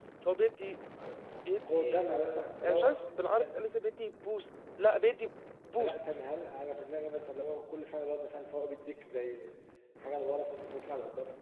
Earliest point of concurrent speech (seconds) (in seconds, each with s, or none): 1.7 s